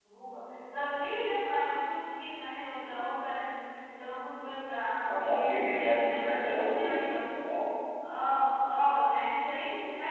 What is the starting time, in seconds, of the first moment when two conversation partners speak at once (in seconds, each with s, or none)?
5.1 s